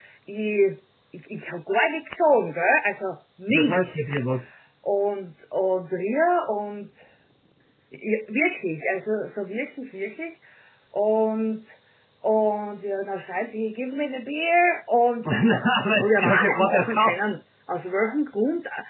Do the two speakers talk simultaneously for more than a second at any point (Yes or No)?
Yes